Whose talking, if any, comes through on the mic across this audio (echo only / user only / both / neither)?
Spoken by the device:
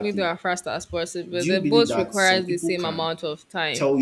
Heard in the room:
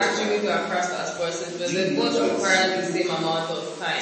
echo only